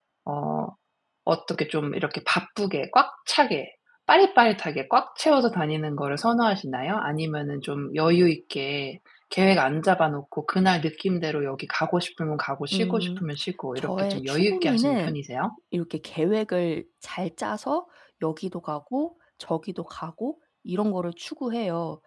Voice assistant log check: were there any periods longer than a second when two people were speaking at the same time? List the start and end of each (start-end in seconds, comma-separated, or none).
13.8-15.2